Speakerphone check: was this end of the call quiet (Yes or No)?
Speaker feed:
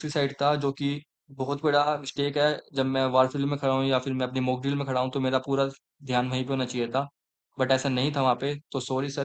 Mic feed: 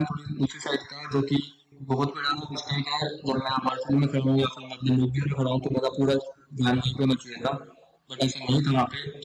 Yes